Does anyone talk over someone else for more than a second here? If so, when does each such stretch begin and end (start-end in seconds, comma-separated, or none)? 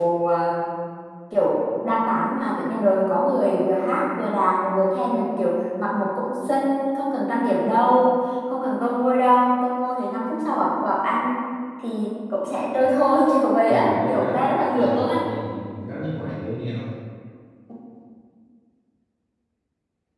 13.7-15.2